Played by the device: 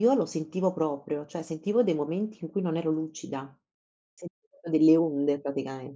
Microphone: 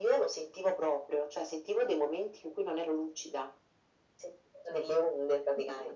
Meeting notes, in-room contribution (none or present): present